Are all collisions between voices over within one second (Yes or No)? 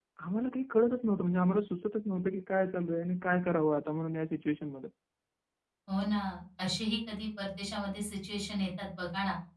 Yes